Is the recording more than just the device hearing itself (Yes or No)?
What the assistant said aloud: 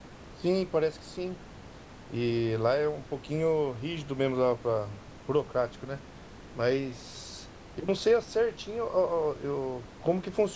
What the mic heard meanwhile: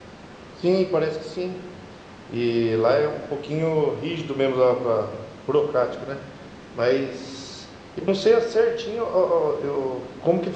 No